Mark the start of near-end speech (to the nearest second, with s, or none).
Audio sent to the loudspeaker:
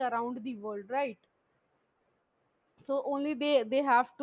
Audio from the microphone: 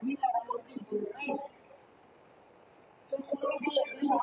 none